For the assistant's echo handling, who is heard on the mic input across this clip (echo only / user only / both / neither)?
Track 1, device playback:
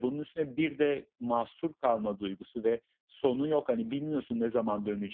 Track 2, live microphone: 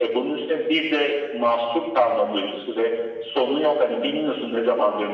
echo only